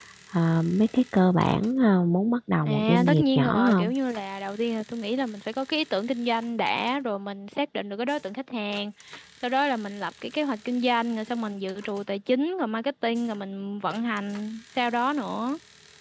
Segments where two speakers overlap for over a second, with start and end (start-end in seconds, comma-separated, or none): 2.6-3.9